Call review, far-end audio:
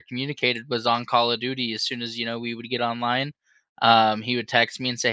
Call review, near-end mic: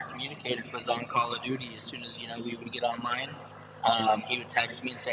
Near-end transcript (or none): none